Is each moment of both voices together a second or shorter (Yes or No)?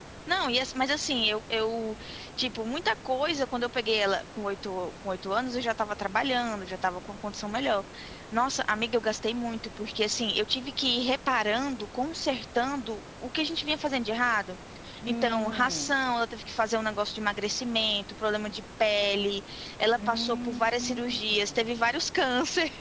No